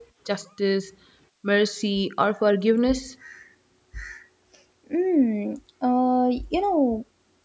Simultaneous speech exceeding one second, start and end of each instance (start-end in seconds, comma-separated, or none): none